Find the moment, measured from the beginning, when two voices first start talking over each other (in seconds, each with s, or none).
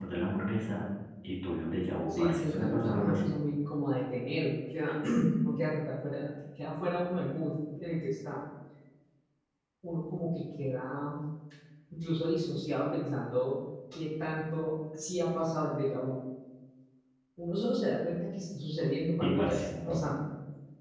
2.1 s